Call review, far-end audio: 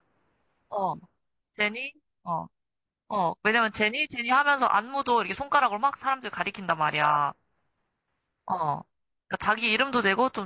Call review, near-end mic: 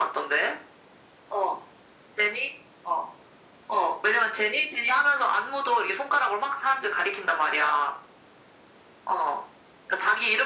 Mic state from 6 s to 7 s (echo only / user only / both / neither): echo only